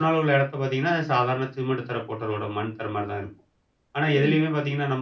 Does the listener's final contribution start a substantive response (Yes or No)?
No